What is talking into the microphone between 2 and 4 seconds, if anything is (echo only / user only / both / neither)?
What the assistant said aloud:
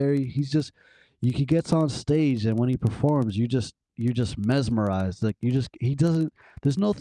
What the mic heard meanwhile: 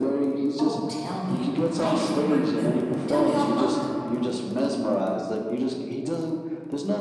both